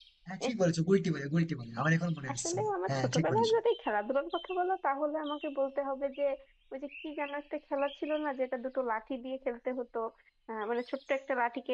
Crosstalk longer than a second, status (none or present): present